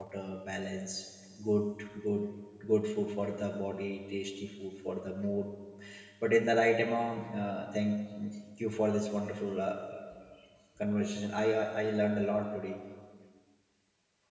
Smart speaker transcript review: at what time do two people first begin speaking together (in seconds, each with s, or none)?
none